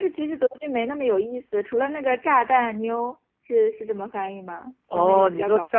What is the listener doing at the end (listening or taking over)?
taking over